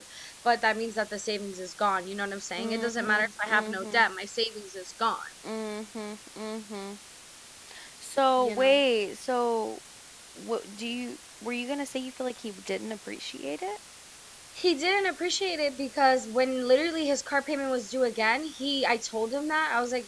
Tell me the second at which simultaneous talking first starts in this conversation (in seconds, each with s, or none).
2.6 s